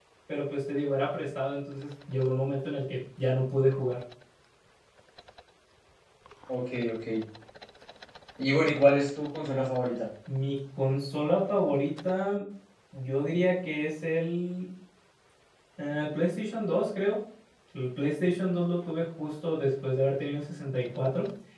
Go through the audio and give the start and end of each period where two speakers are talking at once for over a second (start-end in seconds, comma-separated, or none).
none